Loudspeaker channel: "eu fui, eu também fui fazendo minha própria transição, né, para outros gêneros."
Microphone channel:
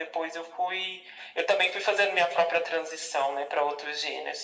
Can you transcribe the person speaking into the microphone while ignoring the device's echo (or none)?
none